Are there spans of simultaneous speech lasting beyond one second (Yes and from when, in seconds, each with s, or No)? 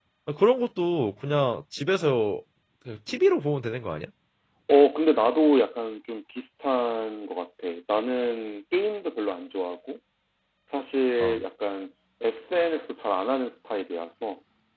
No